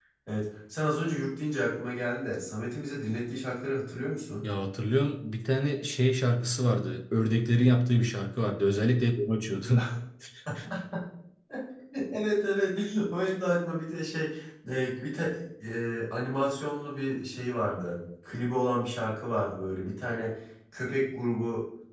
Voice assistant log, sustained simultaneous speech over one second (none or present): none